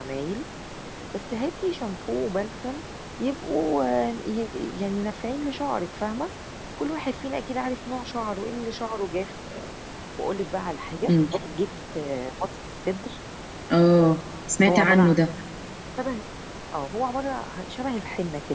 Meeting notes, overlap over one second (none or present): none